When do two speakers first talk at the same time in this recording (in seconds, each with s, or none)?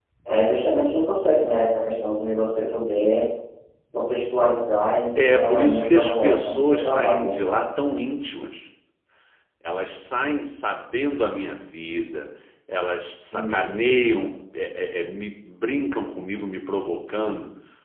5.2 s